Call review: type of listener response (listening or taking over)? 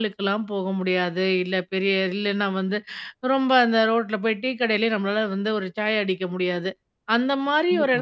listening